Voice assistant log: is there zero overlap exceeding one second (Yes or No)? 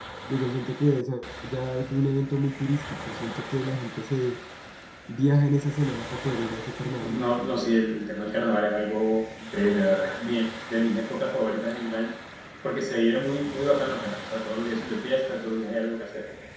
Yes